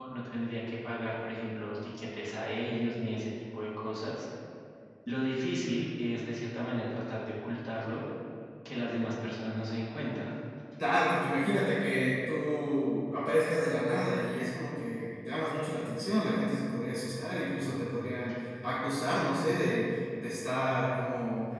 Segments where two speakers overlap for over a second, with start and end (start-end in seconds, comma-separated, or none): none